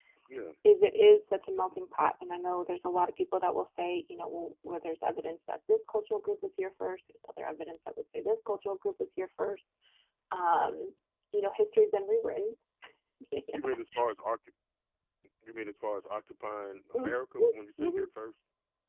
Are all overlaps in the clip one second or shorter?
Yes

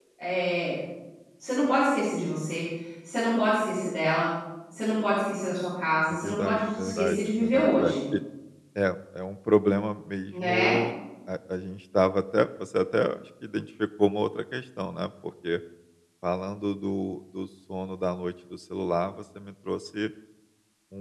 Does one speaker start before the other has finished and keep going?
Yes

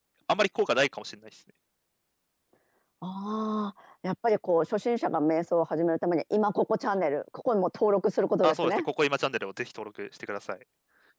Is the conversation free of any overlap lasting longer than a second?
Yes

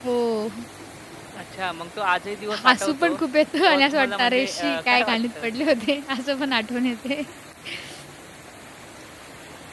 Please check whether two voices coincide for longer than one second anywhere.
Yes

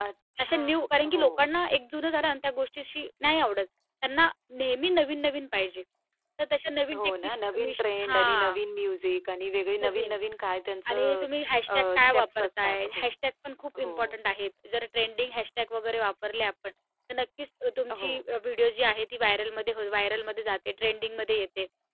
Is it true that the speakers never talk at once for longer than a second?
No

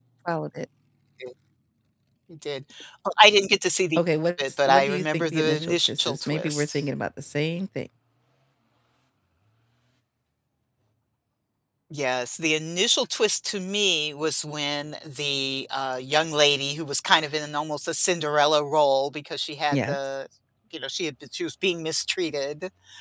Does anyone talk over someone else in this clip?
Yes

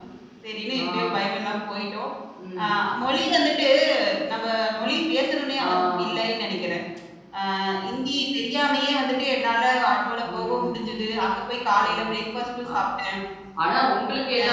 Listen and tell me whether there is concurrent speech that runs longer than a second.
No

